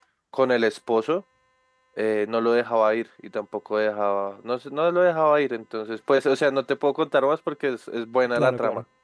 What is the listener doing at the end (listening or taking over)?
listening